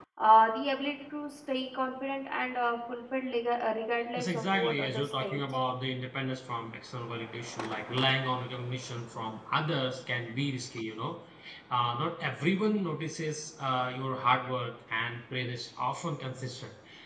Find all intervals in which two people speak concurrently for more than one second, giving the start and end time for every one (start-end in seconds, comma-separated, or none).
4.2-5.4